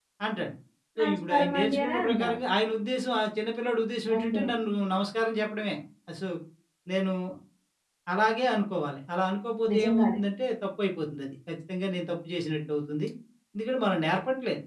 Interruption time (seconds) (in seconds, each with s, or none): 1.0 s